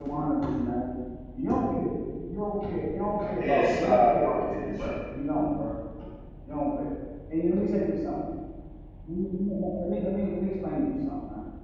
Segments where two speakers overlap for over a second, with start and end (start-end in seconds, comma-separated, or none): 3.4-4.7